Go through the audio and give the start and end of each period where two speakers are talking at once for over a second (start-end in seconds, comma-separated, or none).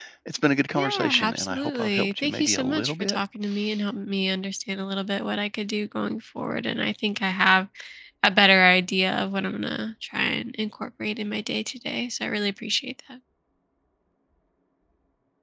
0.8-3.2